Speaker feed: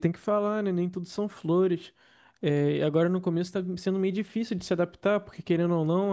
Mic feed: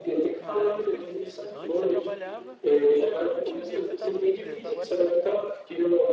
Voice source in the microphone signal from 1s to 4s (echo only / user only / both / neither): both